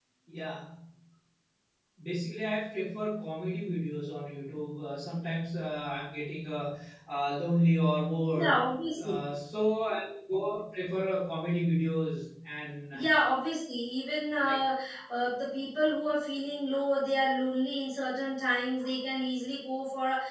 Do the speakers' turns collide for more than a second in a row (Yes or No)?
No